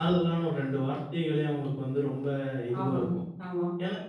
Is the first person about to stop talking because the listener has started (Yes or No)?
No